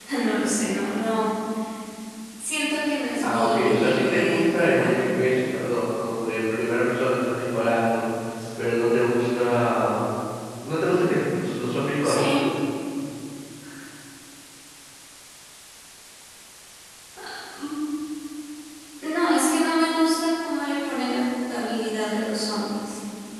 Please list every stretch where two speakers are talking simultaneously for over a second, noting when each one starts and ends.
3.2-5.0

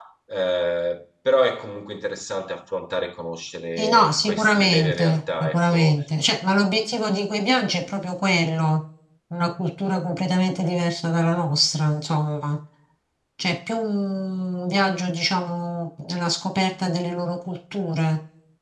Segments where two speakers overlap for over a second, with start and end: 3.8-5.9

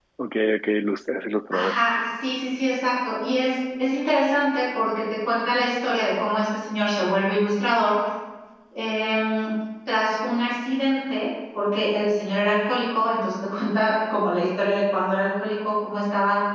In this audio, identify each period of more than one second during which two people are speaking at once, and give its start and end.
none

